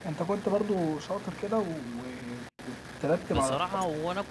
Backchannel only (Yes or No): No